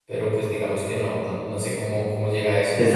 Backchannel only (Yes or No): No